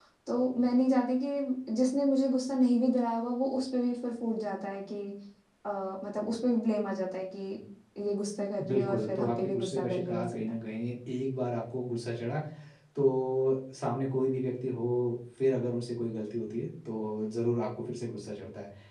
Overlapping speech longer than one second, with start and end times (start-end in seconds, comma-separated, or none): 8.7-10.4